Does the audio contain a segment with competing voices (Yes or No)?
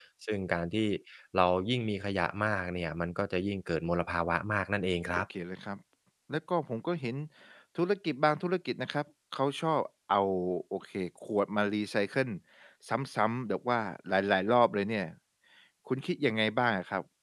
No